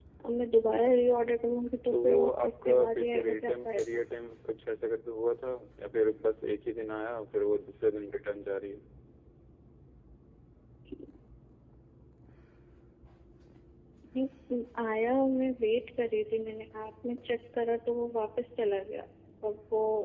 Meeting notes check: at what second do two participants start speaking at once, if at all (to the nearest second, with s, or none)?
2 s